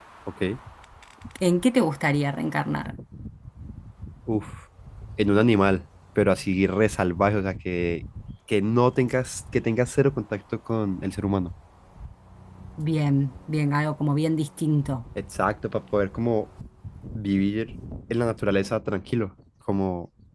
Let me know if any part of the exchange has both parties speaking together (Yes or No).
No